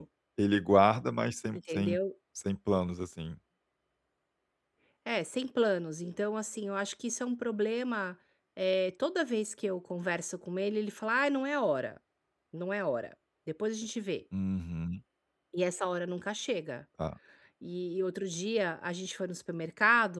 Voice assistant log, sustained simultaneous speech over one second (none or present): none